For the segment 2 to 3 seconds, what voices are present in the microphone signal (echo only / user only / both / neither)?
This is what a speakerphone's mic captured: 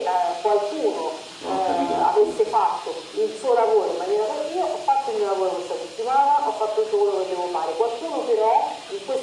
both